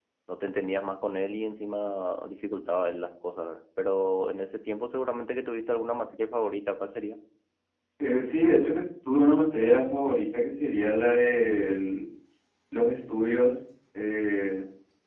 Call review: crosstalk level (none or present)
none